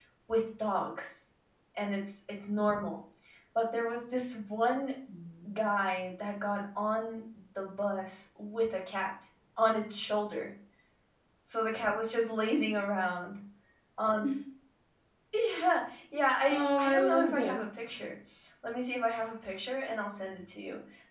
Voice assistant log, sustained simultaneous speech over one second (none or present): present